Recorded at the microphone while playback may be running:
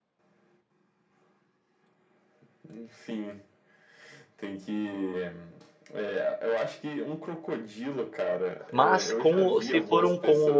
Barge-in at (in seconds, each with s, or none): 8.7 s